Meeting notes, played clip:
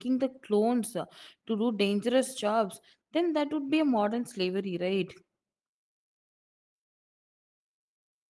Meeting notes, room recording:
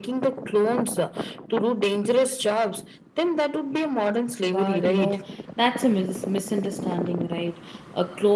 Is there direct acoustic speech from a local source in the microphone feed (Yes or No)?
Yes